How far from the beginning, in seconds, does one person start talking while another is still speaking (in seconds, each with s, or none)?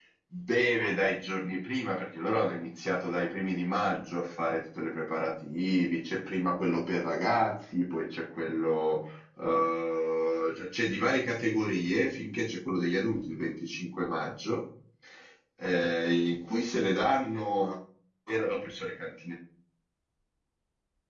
none